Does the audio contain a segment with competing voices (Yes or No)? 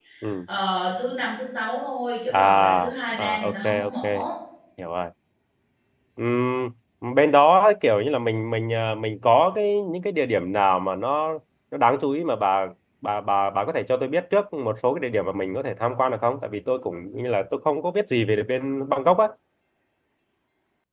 Yes